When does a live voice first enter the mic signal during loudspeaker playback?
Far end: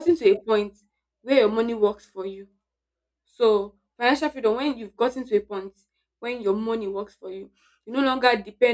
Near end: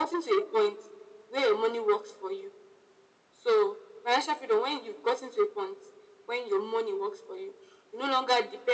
none

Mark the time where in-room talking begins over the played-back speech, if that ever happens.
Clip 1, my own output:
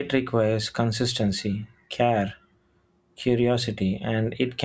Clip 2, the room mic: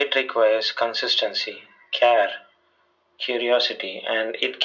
none

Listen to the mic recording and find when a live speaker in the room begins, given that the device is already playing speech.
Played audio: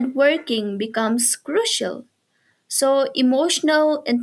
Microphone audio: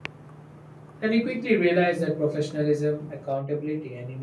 1 s

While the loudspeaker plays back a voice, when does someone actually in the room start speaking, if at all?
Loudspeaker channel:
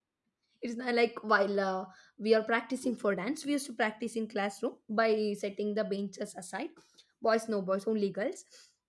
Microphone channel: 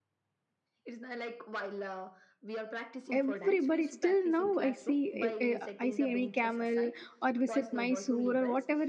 3 s

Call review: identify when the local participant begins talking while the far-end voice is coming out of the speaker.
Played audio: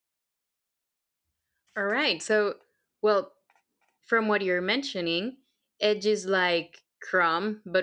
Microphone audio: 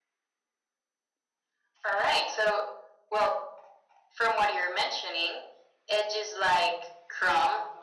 none

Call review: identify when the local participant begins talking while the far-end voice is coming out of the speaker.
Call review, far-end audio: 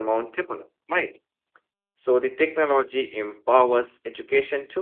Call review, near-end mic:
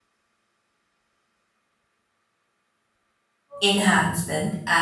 4 s

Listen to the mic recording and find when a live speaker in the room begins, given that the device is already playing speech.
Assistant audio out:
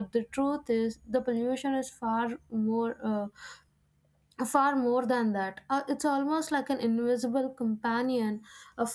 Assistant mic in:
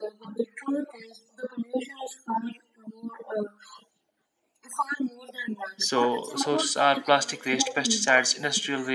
6 s

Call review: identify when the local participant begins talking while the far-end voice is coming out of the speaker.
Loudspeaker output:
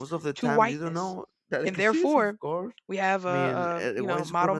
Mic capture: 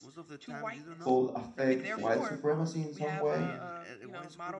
1 s

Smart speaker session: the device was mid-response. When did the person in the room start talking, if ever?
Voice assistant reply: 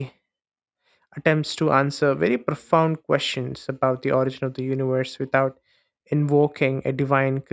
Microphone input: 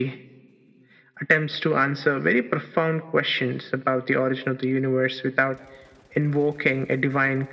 none

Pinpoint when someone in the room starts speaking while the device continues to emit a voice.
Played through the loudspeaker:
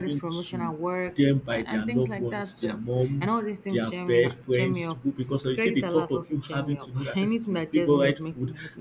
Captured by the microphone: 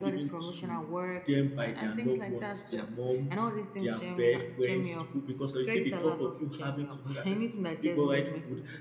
none

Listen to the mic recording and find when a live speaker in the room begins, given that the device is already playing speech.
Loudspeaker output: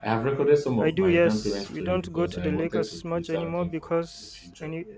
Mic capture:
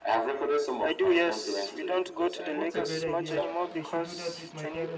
3 s

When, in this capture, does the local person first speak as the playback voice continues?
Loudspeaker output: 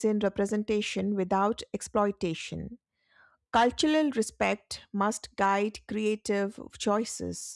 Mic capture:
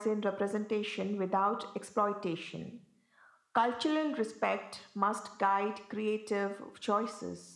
none

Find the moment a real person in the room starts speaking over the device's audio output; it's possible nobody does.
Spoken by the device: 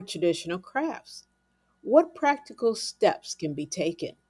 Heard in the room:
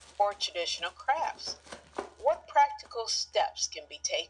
none

